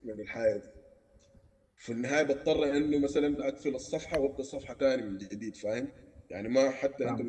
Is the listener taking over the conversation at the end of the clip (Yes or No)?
No